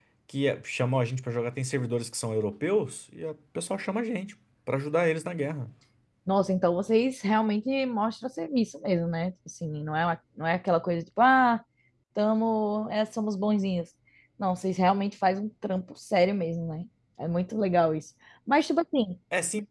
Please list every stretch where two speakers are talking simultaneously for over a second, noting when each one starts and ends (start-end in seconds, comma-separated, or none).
none